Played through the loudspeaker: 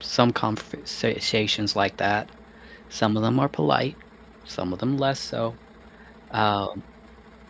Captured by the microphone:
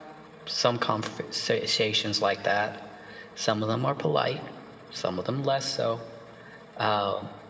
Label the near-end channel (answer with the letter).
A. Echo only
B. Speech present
A